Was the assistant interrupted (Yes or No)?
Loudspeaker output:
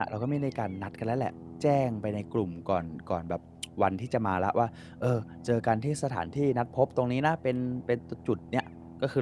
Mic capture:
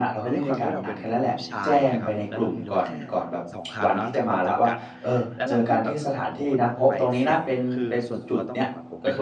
Yes